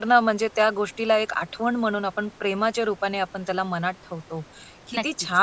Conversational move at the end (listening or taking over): listening